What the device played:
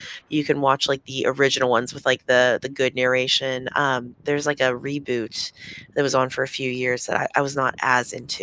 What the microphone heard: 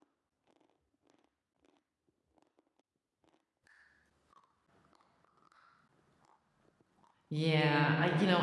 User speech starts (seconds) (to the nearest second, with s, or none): 7 s